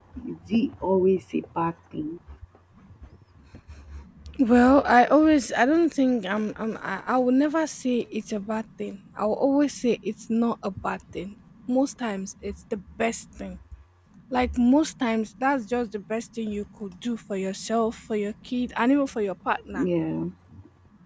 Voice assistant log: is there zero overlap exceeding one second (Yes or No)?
Yes